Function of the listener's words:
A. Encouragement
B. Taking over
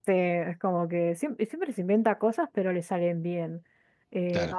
A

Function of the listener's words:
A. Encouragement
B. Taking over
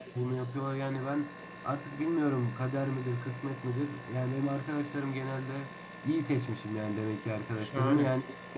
A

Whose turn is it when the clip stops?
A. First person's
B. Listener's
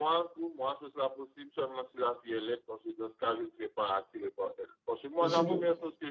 A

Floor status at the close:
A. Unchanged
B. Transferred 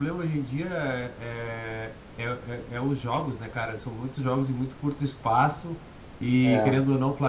A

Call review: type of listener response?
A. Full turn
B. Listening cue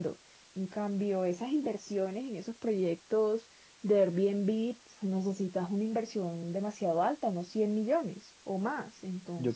A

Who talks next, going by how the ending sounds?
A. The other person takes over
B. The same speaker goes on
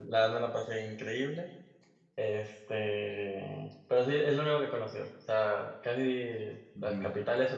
B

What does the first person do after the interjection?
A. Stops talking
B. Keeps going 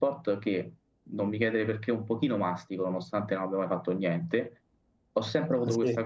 B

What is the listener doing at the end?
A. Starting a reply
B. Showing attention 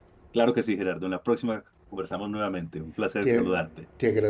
A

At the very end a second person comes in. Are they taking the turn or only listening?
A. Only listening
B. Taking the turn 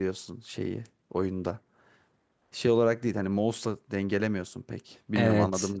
B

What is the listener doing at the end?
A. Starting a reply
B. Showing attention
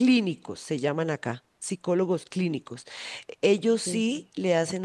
B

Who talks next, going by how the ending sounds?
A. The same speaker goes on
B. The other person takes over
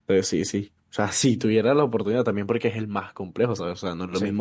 A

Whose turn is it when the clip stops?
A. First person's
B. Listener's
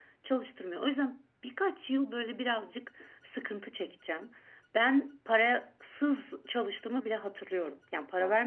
A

